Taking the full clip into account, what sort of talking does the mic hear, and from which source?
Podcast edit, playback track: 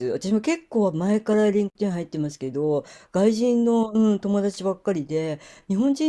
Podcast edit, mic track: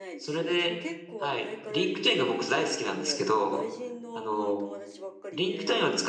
both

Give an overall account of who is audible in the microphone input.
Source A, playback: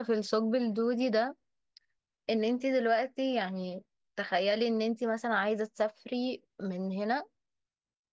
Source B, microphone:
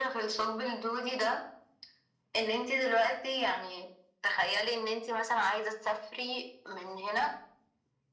echo only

